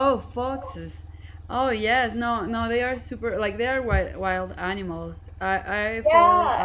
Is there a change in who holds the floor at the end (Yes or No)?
Yes